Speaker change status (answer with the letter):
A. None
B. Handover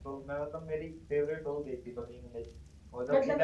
B